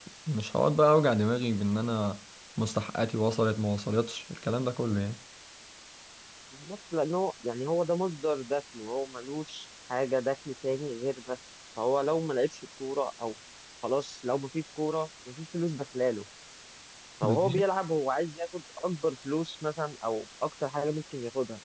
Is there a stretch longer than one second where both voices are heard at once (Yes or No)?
No